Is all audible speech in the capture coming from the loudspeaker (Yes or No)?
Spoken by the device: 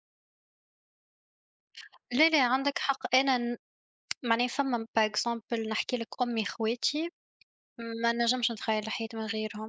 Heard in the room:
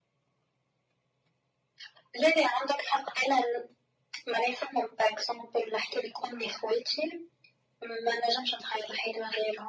Yes